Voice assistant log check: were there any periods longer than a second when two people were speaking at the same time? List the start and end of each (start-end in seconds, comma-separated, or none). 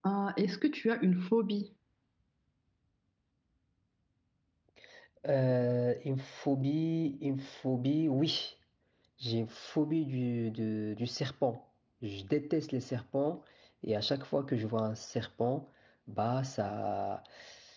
none